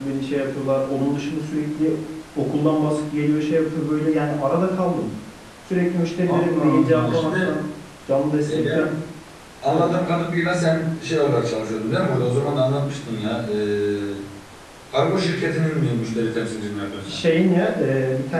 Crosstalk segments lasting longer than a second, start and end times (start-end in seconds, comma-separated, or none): 6.3-7.5